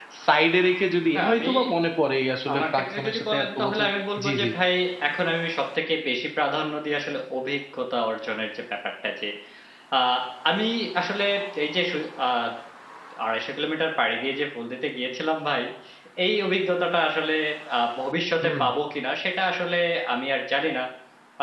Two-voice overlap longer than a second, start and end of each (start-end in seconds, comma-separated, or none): 2.5-3.9